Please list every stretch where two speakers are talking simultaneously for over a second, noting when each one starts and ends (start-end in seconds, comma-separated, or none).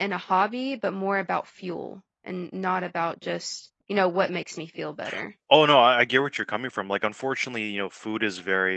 none